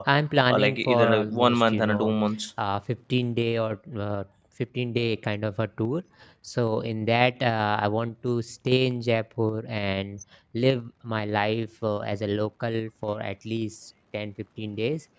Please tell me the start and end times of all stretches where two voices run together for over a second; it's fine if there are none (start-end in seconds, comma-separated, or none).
0.5-2.2